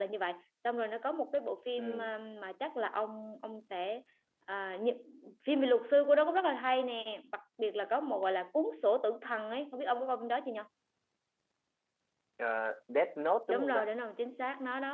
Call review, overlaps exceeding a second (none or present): none